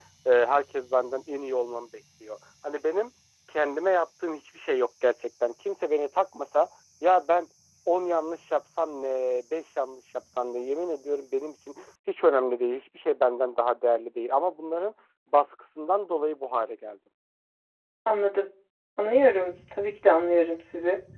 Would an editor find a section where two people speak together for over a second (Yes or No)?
No